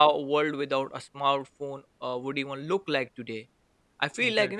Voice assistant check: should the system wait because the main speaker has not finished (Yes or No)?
Yes